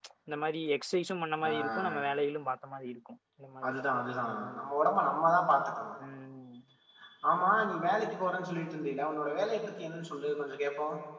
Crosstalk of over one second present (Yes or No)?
No